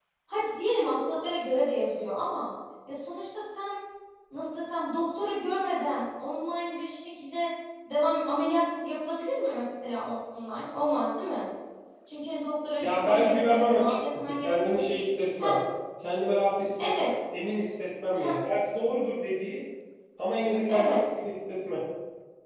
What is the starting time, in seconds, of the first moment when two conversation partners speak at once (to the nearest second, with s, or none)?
13 s